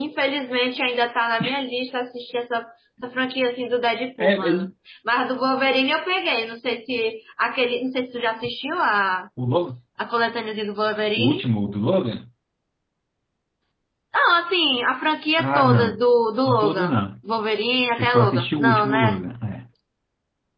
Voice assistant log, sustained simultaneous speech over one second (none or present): present